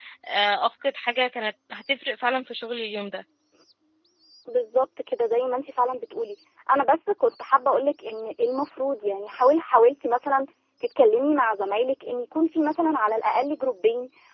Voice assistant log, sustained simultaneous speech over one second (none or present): none